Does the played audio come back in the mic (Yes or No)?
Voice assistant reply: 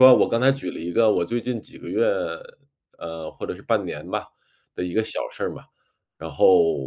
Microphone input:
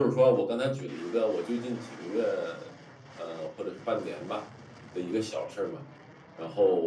Yes